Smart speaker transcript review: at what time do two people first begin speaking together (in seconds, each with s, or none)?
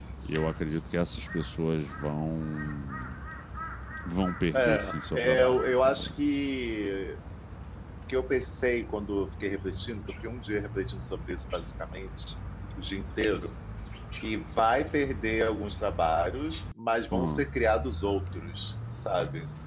4.5 s